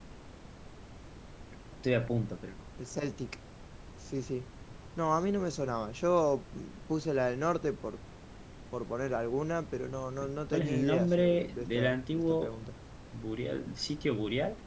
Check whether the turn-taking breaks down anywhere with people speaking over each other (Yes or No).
Yes